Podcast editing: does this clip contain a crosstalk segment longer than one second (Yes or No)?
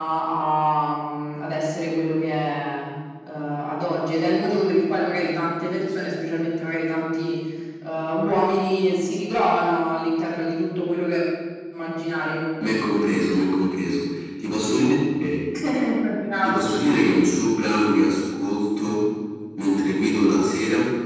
No